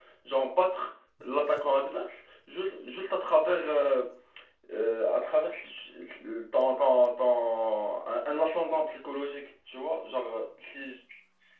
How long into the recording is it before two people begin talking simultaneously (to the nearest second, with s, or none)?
none